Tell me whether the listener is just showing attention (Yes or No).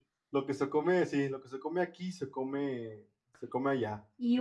No